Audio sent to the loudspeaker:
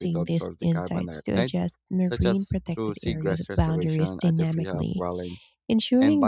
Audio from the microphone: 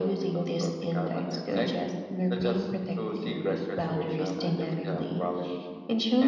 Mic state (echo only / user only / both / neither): echo only